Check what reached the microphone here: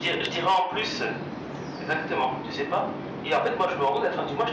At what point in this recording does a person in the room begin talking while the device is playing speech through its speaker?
none

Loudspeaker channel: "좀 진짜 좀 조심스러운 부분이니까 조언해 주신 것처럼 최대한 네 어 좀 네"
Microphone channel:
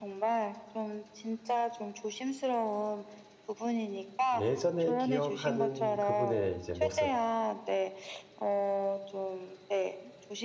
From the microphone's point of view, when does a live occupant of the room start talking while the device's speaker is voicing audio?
4.3 s

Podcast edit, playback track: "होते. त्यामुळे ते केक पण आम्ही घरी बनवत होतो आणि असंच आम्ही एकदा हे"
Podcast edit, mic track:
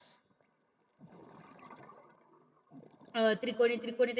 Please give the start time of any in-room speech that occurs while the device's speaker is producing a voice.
3.1 s

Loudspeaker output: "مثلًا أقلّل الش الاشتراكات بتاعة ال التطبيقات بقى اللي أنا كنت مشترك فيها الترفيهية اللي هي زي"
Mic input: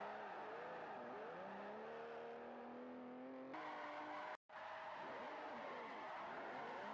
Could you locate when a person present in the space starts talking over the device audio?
none

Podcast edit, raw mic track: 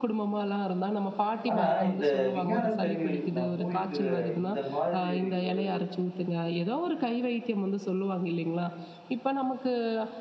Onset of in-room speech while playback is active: 1.5 s

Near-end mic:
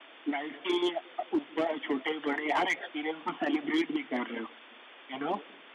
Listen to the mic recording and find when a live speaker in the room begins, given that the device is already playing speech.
none

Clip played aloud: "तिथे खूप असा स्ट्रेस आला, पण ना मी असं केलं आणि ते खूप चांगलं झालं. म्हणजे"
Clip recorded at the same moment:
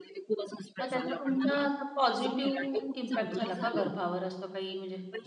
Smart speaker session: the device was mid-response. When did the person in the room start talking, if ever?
0.8 s

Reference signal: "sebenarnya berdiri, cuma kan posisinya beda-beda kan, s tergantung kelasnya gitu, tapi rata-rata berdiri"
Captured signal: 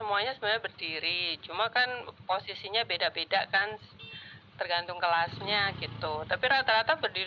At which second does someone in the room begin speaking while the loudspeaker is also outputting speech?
none

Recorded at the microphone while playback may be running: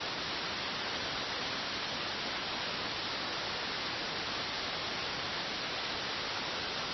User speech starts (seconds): none

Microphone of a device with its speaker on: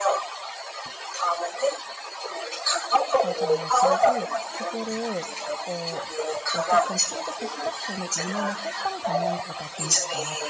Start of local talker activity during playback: 3.2 s

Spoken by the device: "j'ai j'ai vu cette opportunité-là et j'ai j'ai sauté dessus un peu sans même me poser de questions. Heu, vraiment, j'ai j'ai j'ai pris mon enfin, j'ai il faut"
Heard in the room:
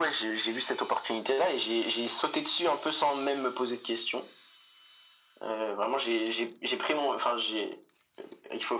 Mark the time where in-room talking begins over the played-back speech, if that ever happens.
none

